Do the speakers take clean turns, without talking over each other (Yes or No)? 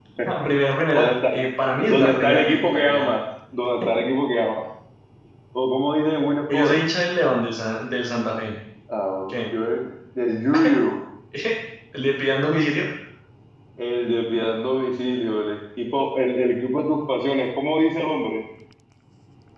No